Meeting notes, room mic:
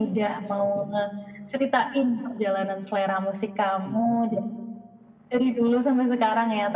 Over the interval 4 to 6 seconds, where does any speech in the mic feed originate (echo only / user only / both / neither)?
echo only